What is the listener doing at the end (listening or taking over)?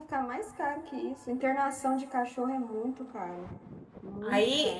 taking over